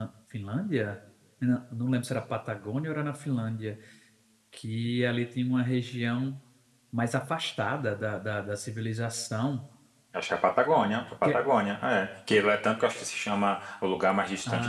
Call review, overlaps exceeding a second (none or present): none